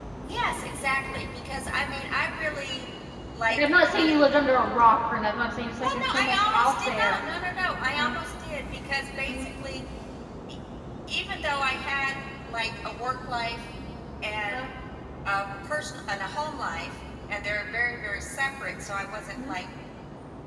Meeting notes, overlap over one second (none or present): present